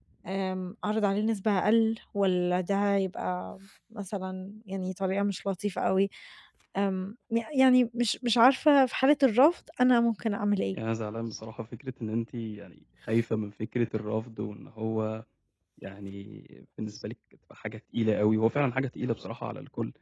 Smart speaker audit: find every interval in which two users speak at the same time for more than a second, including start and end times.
none

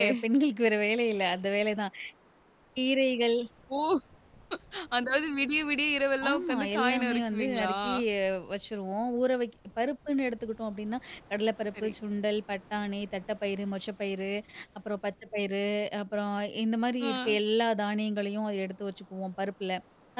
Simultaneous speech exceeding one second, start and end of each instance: 6.3-7.8

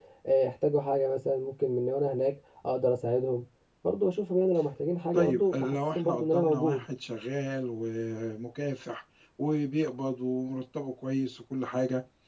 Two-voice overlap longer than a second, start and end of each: 5.1-6.8

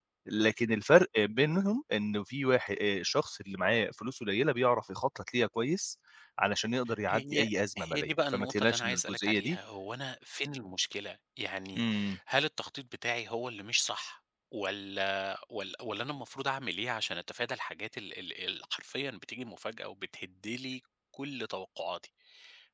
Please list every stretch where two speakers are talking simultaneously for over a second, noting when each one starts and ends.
7.9-9.6

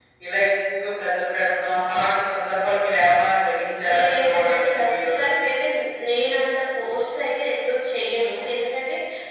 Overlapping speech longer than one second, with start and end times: 4.0-5.4

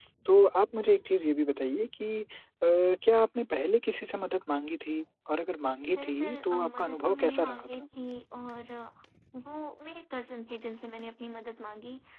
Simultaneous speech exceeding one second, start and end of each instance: 5.9-7.7

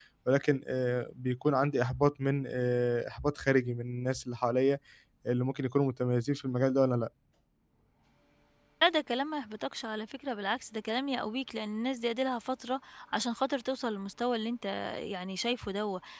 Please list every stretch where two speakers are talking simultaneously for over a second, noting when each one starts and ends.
none

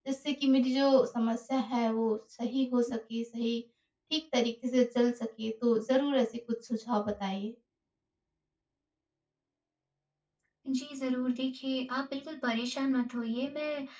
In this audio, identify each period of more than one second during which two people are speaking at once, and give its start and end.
none

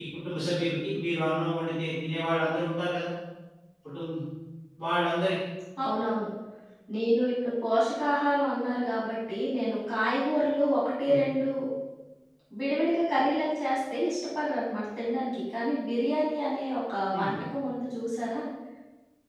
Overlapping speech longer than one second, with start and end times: none

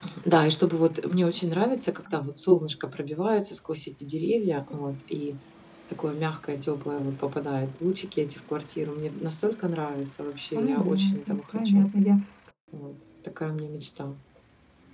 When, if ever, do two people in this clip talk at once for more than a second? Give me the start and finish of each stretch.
10.5-11.9

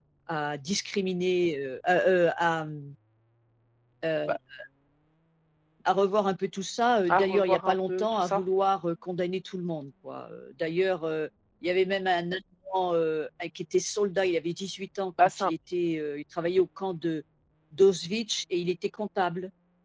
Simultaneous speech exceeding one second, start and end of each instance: 7.1-8.4

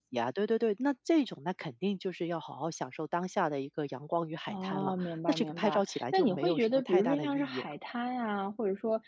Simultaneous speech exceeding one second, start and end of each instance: 4.5-7.7

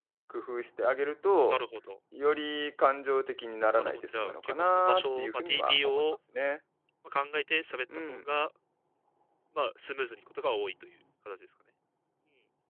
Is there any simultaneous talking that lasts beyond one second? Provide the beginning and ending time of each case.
3.8-6.0

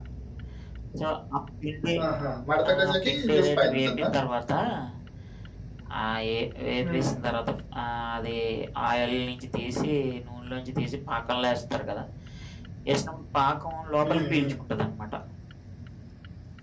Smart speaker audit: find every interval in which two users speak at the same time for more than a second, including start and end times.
2.7-4.1

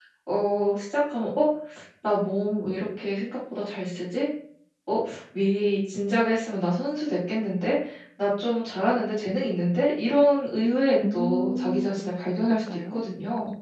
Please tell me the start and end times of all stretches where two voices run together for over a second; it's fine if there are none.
11.1-13.1

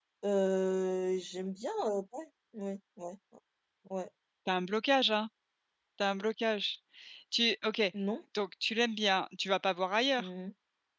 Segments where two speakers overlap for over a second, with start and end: none

